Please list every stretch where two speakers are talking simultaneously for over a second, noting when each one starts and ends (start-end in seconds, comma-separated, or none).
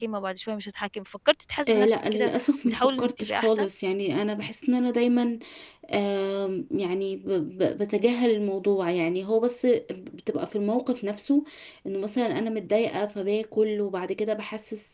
1.7-3.7